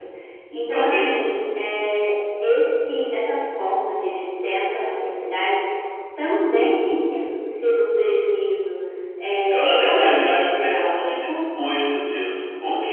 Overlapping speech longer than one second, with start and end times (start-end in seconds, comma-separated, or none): 9.7-10.9